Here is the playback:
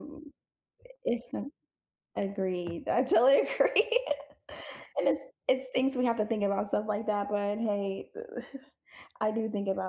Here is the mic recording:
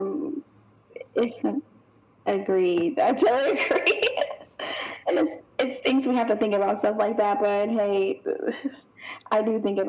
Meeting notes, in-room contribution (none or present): none